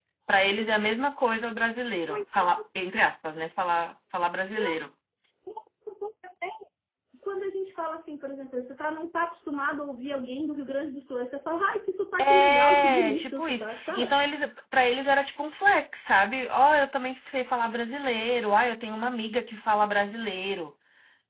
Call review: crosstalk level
present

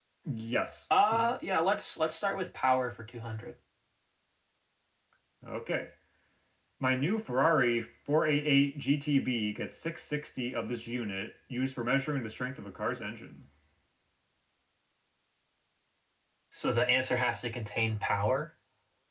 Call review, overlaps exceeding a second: none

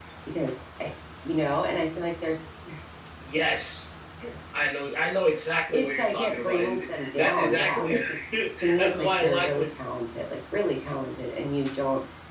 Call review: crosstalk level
present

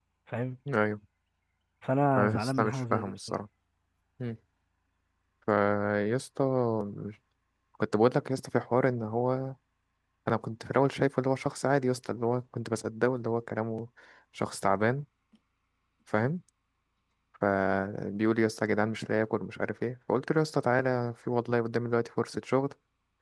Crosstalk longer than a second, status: present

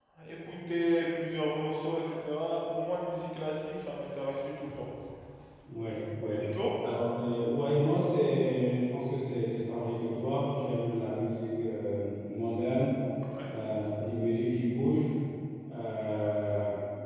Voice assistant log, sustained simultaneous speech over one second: none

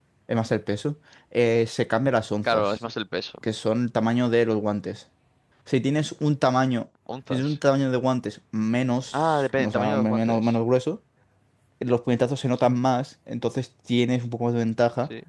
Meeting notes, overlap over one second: present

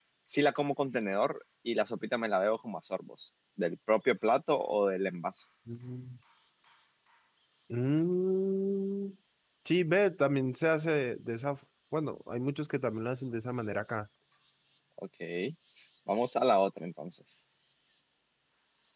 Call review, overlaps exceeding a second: none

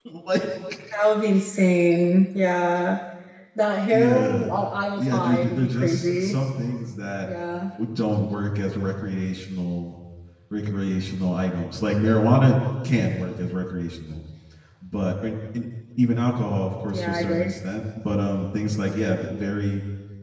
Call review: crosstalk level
present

